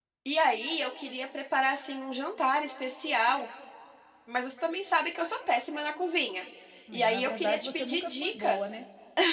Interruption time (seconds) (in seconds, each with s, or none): 6.9 s